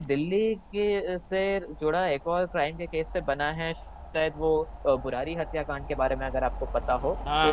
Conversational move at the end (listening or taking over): taking over